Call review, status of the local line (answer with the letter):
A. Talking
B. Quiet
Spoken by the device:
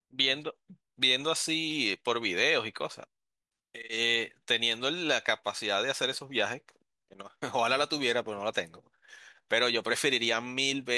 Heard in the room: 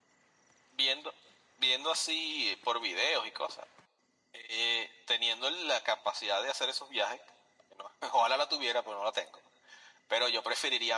B